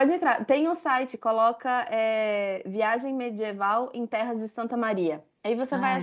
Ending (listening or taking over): listening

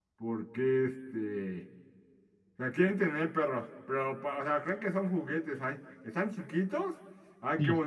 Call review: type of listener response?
listening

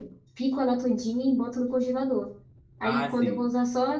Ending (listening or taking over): listening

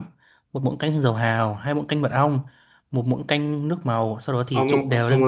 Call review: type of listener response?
taking over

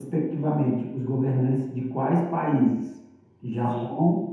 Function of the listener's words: listening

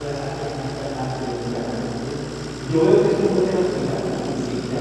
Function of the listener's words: listening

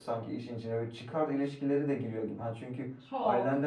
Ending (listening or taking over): listening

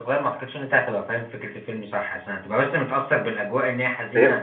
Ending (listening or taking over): taking over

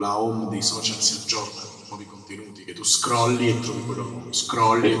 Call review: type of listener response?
listening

